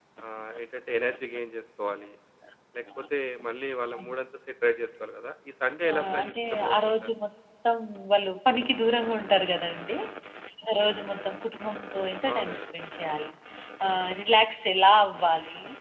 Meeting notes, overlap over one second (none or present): present